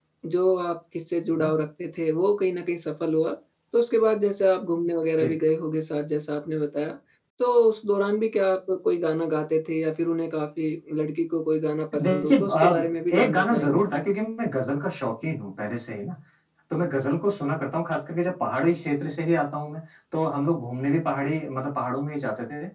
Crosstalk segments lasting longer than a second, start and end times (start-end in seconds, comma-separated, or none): 12.0-13.8